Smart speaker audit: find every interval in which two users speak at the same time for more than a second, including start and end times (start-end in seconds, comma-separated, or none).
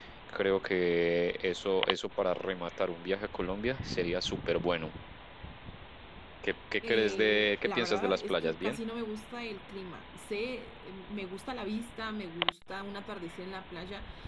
6.9-8.8